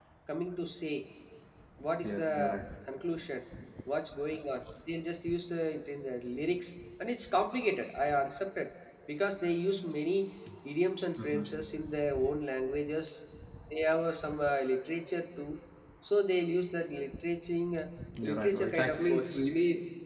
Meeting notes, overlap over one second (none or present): present